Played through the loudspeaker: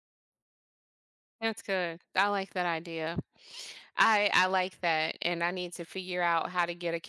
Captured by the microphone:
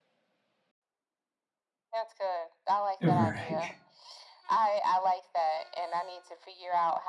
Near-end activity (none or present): present